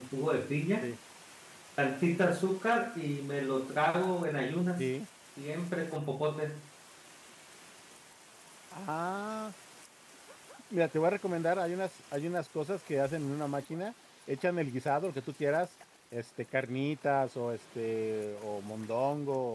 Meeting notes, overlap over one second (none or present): none